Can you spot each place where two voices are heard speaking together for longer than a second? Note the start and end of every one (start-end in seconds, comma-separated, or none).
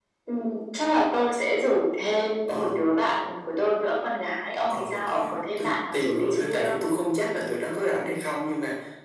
4.7-6.8